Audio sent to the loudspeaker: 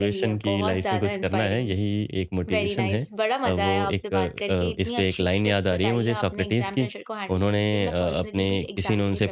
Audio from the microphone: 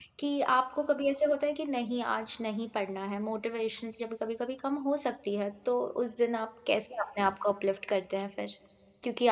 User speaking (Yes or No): Yes